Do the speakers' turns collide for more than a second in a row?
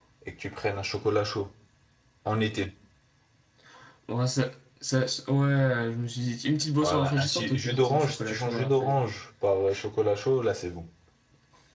Yes, from 6.8 s

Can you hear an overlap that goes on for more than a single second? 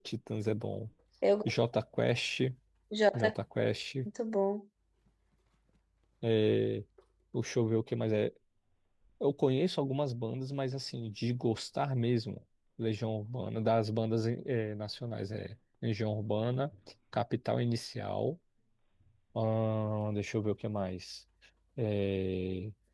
No

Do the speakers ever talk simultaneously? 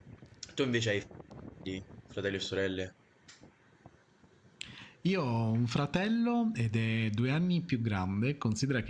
No

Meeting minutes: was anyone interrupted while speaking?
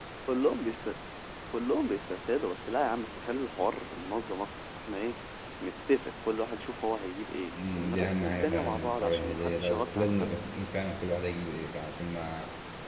Yes, from 7.5 s

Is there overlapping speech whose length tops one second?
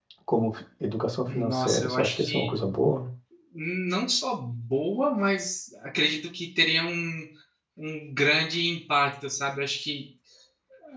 Yes, from 1.3 s

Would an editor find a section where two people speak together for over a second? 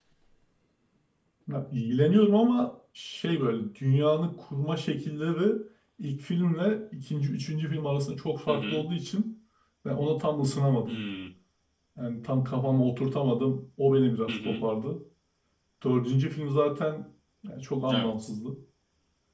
No

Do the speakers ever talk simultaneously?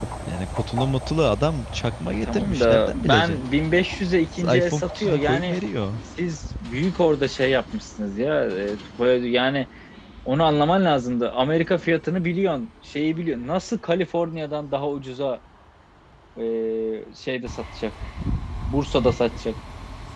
Yes, from 2.2 s

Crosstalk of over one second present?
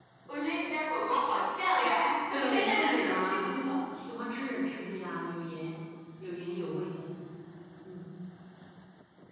Yes, from 2.3 s

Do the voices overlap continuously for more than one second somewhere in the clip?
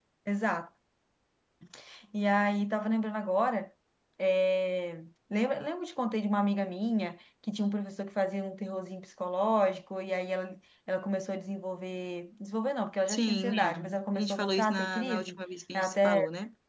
Yes, from 13.1 s

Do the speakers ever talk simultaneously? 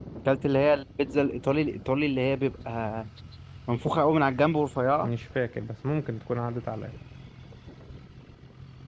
No

